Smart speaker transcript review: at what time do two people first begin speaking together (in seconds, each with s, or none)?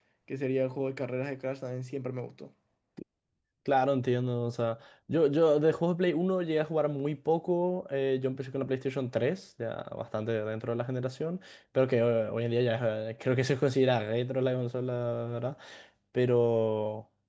none